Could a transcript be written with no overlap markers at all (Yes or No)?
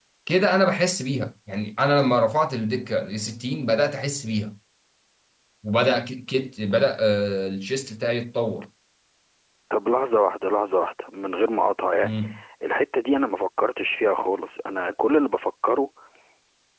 Yes